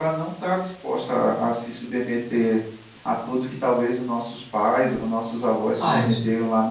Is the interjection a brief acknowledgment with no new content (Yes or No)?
No